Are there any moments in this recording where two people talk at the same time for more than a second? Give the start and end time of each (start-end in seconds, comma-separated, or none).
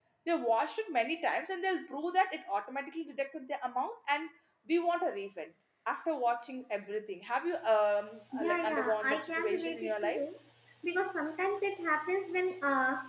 8.3-10.2